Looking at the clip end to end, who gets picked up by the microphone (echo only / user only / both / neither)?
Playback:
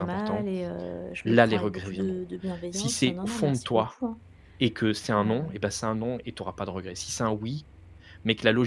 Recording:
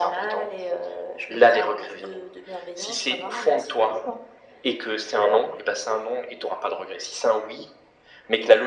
echo only